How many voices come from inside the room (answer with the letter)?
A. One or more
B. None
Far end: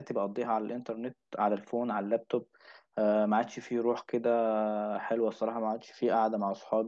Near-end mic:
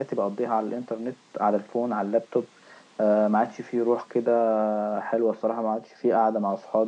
B